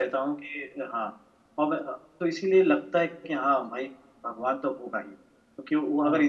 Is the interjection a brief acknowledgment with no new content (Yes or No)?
Yes